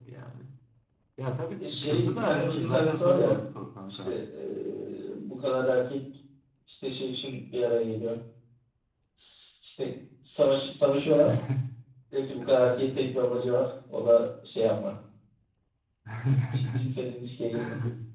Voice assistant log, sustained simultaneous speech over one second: present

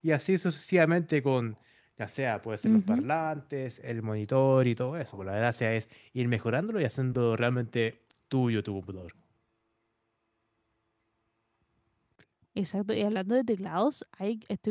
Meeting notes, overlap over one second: none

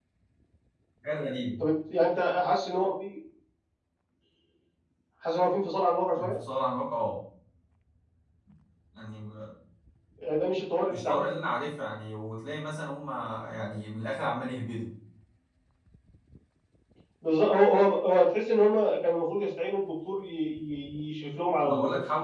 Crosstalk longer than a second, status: none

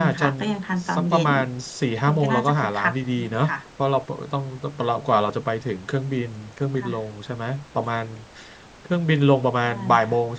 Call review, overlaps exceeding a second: present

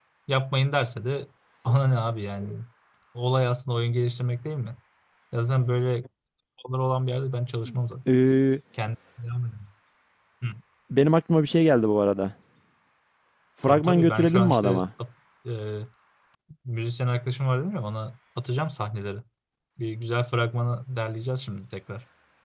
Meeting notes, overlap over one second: present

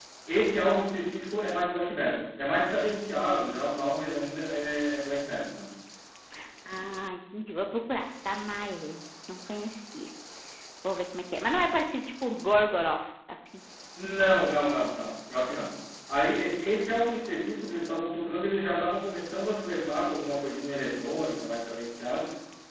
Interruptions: none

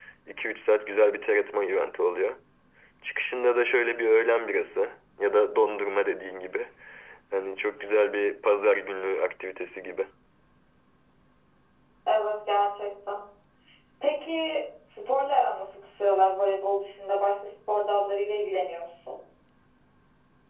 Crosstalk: none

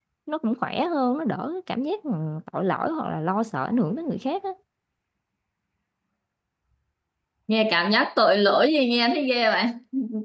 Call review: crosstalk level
none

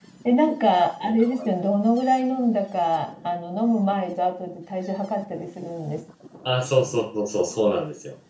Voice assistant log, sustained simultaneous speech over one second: none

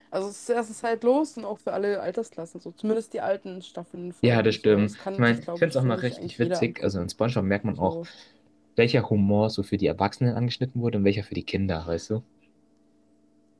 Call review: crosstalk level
present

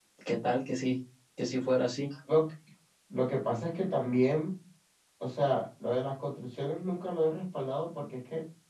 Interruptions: none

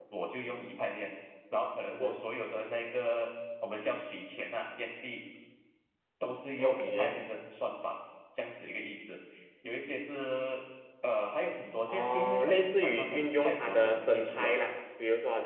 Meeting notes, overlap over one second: present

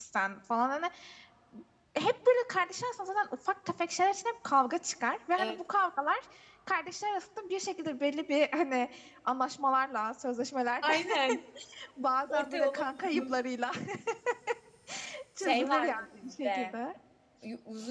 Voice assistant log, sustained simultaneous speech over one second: present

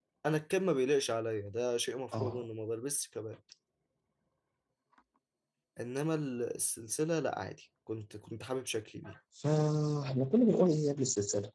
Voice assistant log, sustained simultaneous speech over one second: none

